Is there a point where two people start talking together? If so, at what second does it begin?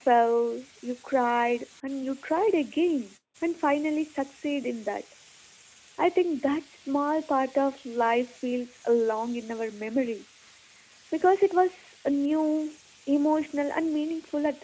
none

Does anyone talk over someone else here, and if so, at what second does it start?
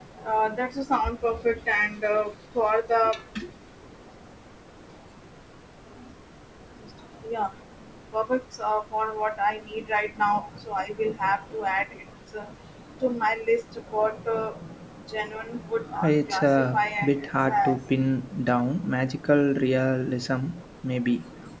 16.0 s

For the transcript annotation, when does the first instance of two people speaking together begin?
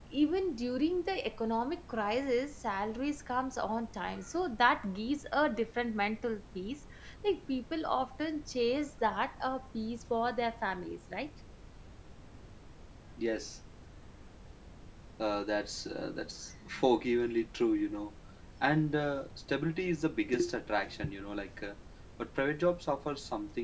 none

